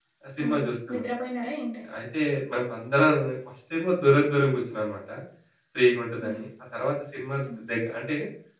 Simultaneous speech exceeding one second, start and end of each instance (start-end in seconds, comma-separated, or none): none